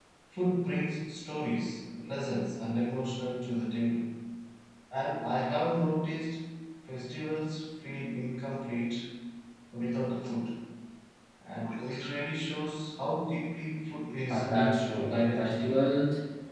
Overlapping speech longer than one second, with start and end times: 14.3-15.8

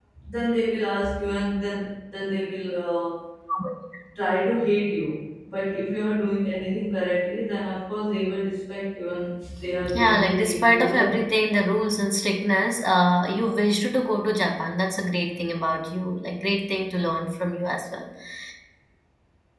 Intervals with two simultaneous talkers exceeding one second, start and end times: 9.9-11.2

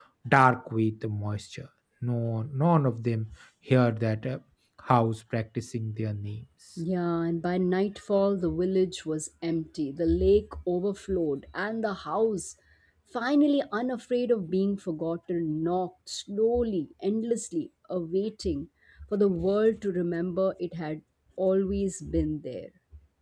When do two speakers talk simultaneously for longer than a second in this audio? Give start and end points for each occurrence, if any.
none

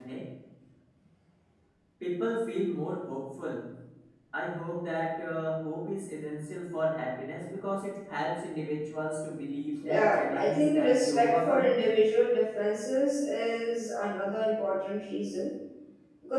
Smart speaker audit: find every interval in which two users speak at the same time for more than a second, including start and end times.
9.8-11.7

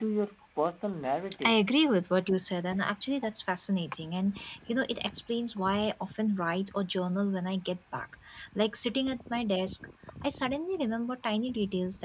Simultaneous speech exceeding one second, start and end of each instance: none

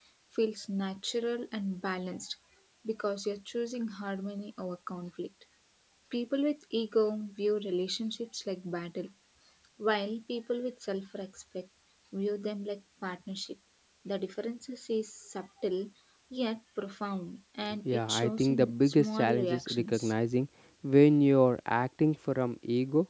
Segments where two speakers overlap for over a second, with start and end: 17.9-20.1

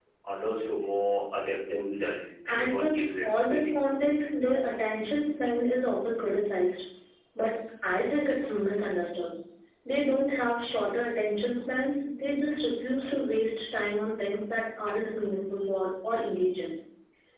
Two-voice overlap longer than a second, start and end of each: 2.5-3.7

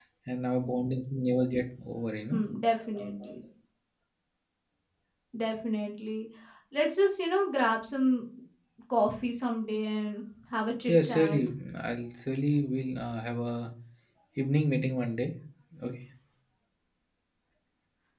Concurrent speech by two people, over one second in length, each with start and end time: none

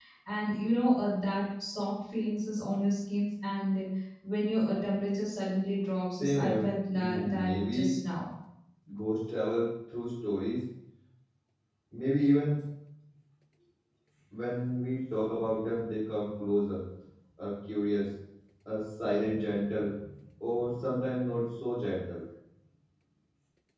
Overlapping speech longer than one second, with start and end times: 6.2-8.0

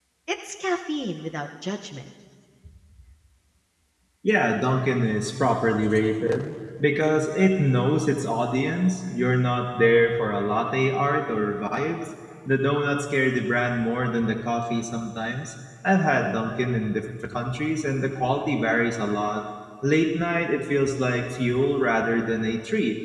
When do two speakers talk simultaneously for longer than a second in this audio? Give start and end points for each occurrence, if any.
none

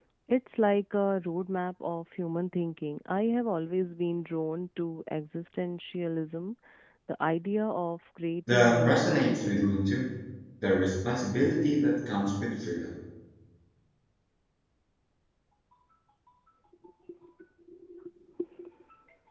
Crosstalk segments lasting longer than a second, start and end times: 8.5-9.8

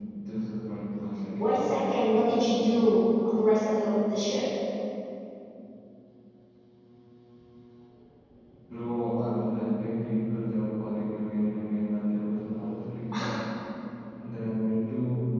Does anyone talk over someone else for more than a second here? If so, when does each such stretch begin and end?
none

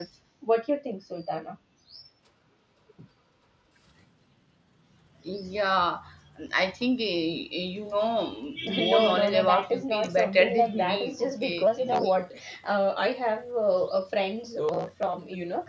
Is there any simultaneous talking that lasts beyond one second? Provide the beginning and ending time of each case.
8.8-12.1

